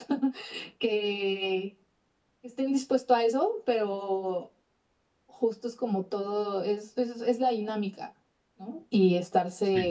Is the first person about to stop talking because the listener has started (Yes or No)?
No